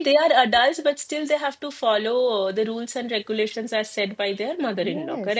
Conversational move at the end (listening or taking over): taking over